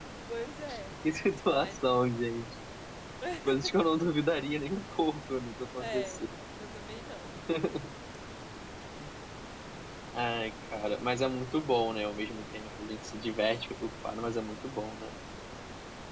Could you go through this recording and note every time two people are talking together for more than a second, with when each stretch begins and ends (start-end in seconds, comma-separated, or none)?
none